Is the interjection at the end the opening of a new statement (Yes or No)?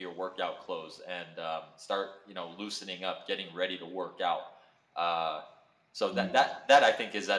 No